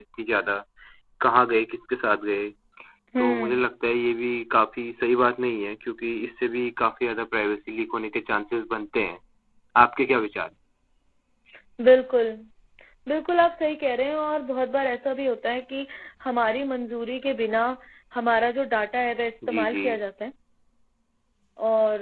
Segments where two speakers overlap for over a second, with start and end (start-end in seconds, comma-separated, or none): none